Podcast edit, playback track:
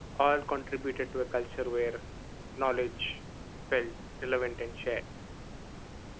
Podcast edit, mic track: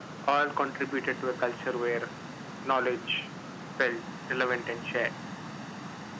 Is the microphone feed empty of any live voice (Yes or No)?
Yes